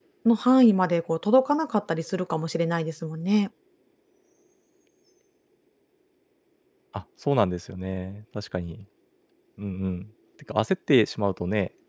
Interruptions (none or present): none